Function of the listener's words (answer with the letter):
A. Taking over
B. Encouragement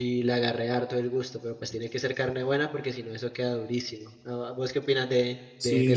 A